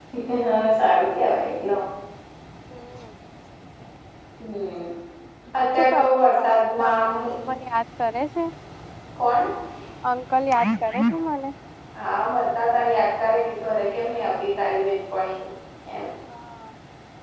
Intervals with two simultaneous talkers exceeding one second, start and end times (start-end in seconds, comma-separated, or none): 5.8-7.1